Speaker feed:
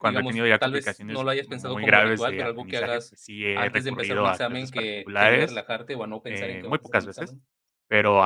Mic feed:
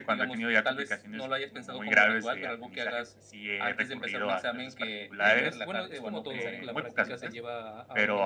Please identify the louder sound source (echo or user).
echo